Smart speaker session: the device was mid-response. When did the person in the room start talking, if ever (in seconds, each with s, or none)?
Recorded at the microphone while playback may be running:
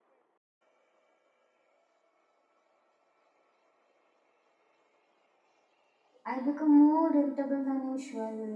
6.2 s